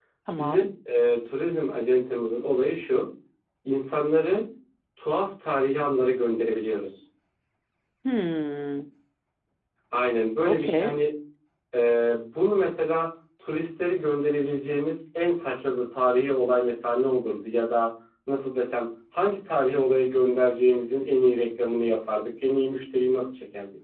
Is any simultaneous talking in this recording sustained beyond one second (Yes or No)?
No